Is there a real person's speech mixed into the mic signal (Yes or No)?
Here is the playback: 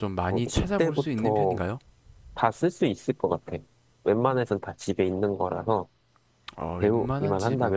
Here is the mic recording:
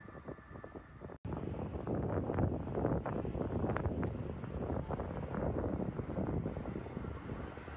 No